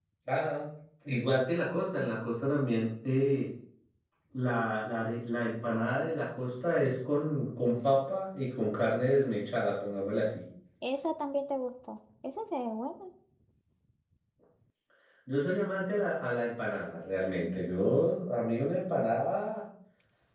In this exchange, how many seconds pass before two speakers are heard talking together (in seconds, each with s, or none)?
none